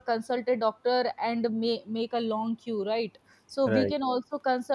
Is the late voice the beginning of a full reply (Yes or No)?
No